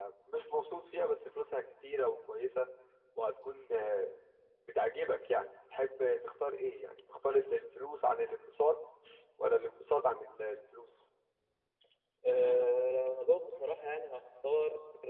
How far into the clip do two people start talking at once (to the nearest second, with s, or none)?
none